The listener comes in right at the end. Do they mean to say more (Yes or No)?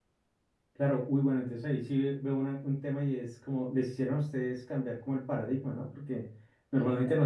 No